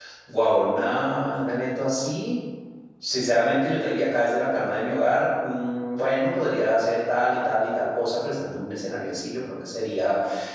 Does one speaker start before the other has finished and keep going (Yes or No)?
No